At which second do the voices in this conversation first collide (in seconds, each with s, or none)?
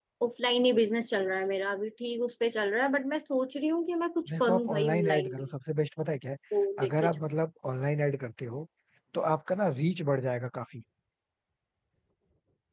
4.3 s